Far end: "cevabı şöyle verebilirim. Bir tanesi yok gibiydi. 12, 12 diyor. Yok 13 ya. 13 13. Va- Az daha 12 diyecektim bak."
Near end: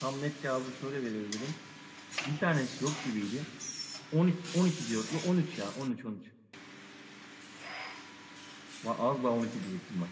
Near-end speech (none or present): none